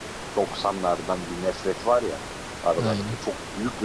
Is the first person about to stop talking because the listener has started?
No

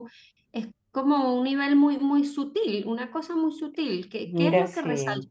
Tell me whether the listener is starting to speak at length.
No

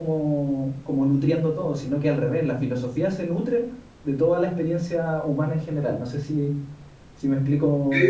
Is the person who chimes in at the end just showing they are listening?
No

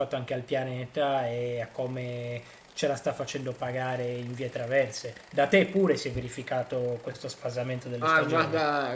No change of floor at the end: No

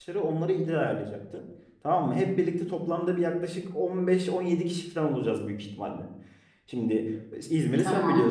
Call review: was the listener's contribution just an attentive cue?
Yes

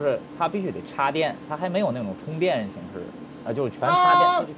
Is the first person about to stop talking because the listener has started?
Yes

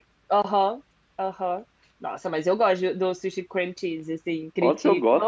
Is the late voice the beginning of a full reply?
Yes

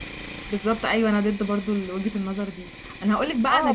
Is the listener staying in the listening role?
Yes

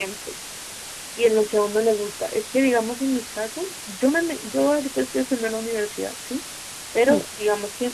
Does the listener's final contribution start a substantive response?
No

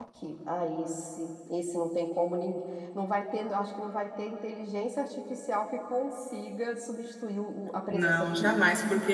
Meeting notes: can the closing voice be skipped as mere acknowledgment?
No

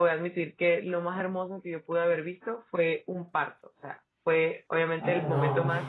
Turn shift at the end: No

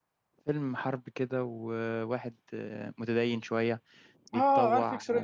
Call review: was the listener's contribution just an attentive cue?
No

